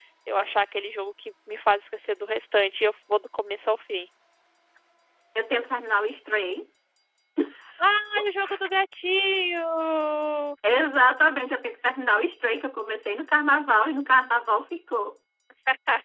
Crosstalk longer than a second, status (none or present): none